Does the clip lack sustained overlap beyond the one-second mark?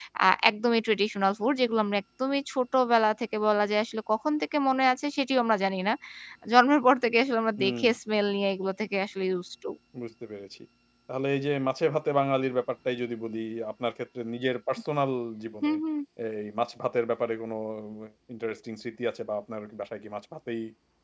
Yes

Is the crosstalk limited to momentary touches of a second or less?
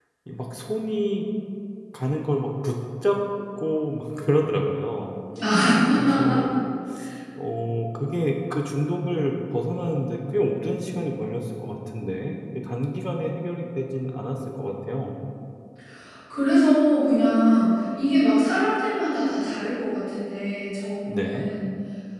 Yes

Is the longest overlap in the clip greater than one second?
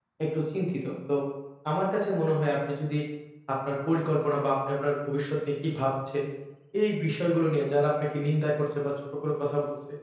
No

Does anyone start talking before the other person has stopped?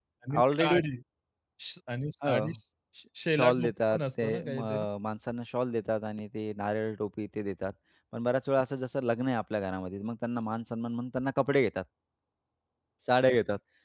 Yes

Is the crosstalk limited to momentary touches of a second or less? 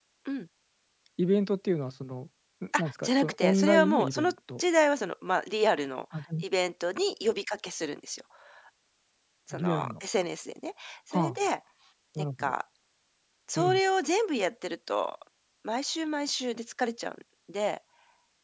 No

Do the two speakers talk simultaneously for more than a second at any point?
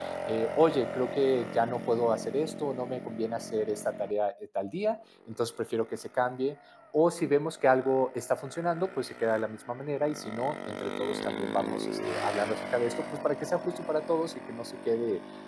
No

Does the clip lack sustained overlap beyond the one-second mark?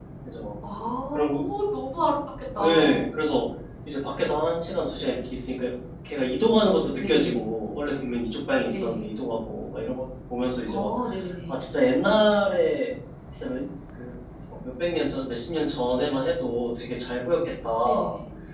Yes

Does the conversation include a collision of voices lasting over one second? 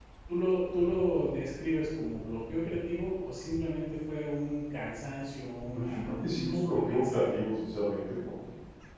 Yes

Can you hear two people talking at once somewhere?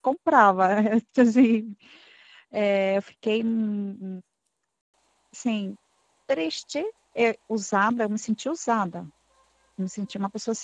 No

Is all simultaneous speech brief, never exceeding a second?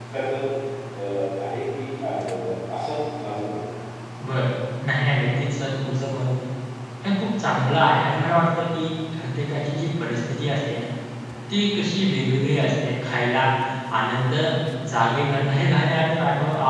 Yes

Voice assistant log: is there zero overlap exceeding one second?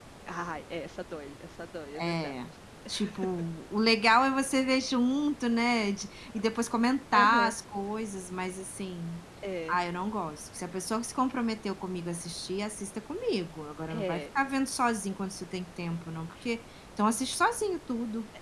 Yes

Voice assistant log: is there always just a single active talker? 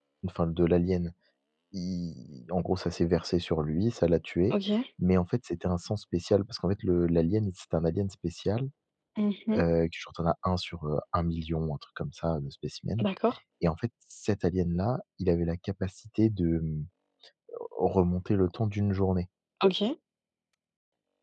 Yes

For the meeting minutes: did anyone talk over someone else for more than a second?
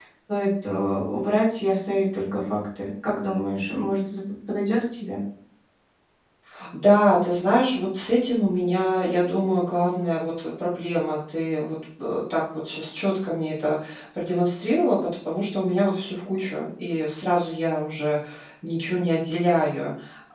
No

